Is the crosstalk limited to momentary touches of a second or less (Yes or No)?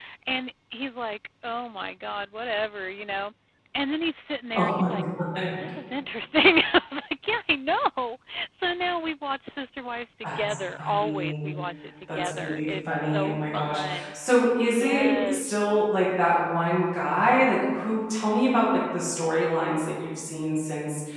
No